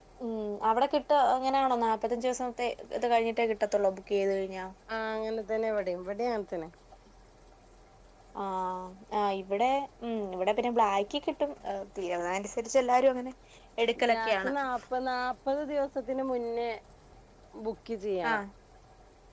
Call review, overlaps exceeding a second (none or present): none